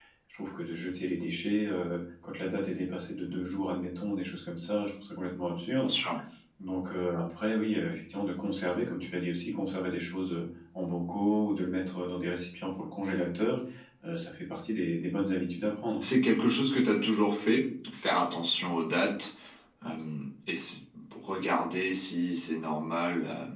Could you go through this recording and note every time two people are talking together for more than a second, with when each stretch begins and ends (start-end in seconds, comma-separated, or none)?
none